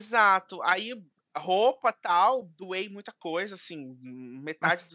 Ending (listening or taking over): listening